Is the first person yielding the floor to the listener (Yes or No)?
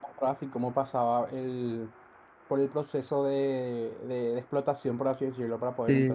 Yes